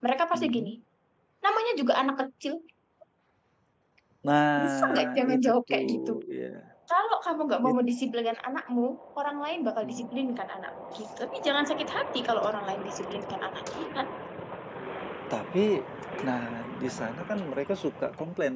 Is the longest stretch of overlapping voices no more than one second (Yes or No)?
No